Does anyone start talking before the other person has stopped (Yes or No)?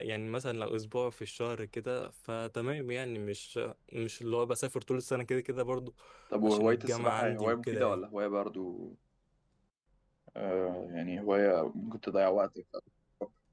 Yes